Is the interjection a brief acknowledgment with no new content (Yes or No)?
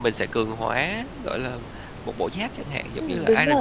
No